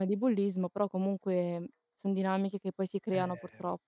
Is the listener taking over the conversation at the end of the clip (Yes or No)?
Yes